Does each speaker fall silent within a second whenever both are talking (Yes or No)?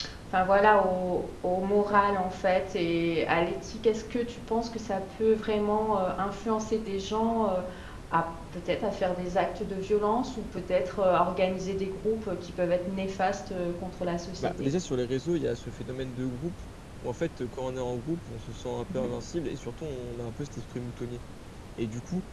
Yes